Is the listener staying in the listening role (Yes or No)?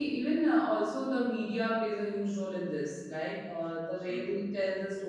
Yes